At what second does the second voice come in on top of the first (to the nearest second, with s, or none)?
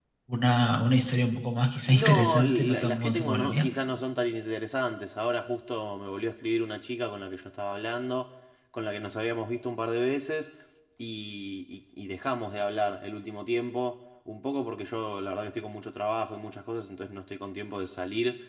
2 s